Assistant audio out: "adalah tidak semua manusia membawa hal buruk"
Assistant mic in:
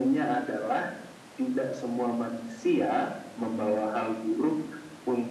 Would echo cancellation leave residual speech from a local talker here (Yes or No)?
No